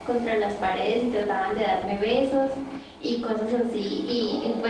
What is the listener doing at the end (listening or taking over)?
listening